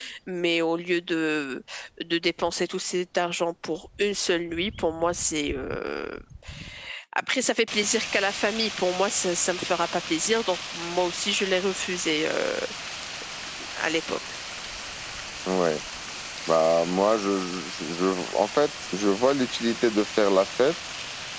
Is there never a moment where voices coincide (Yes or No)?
Yes